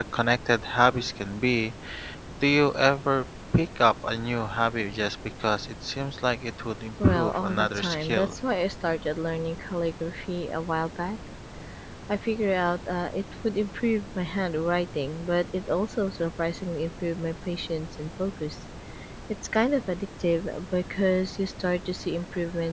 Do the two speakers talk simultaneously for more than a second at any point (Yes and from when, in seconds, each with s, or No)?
Yes, from 7.0 s